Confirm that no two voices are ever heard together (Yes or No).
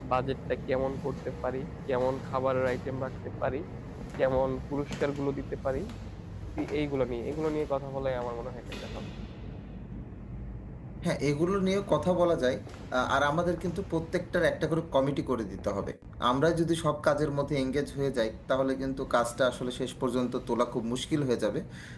Yes